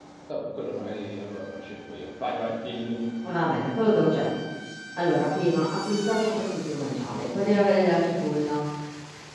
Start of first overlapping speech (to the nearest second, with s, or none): none